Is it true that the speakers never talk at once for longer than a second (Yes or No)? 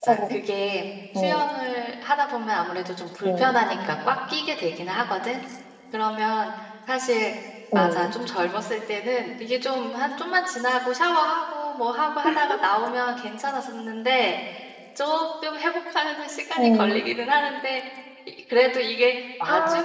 Yes